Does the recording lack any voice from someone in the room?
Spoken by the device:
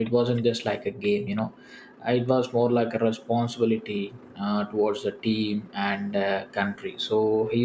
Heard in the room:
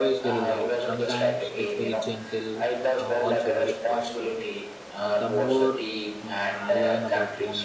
No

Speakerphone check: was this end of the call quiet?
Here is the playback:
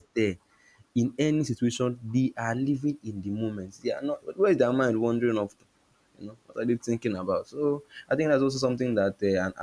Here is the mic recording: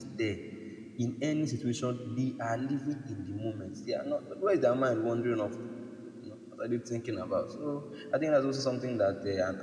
Yes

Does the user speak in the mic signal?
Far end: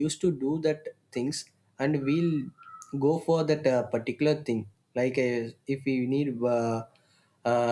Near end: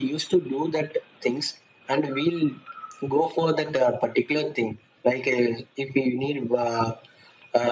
No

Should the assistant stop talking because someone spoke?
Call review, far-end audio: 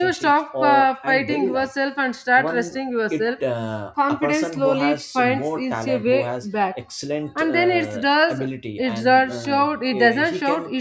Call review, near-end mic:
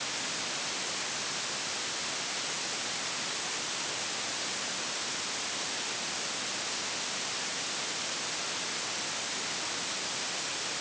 No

